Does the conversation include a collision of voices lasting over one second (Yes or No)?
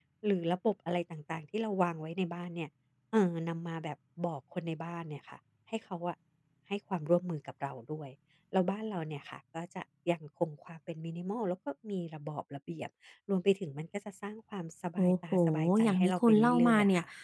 Yes